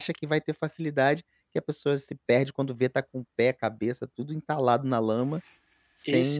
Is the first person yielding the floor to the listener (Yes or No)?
Yes